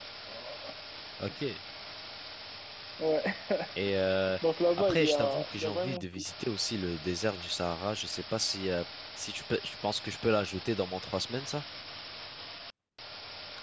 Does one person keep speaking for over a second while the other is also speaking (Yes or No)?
Yes